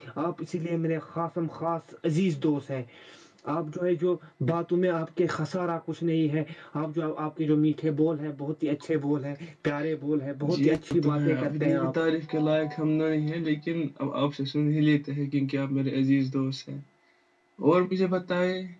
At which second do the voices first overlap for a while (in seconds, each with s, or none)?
10.4 s